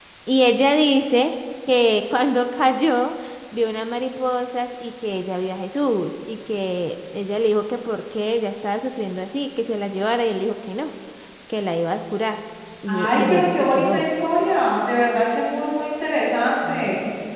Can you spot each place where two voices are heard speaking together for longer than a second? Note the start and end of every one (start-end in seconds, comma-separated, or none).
12.9-14.1